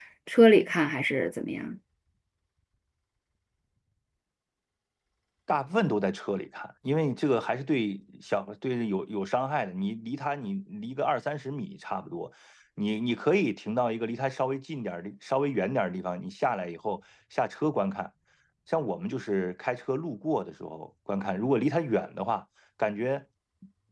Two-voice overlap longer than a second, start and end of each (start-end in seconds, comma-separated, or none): none